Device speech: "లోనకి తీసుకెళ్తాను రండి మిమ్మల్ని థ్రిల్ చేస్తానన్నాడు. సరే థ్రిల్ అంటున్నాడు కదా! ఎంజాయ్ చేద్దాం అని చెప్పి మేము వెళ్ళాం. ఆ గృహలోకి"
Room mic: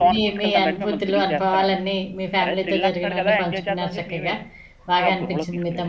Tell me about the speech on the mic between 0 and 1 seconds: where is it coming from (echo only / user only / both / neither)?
both